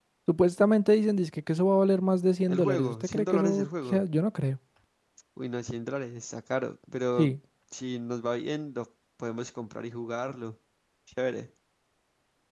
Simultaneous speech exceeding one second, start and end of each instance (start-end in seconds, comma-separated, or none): 2.5-4.0